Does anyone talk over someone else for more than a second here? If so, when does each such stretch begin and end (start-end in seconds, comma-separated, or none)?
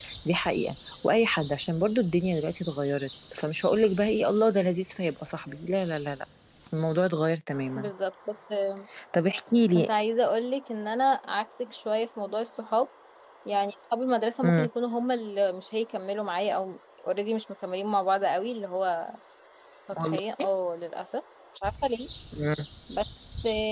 none